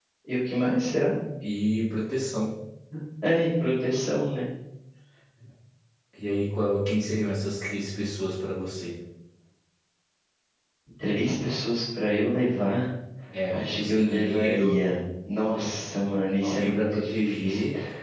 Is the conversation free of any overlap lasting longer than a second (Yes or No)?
No